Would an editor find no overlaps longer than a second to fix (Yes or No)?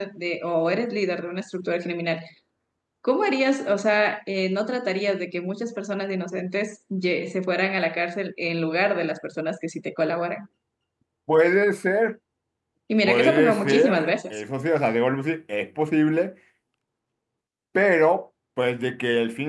No